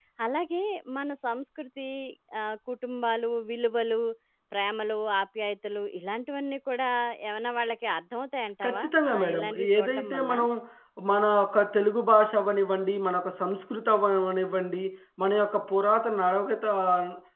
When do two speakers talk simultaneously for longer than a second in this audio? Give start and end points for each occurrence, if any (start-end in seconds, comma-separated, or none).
8.6-10.3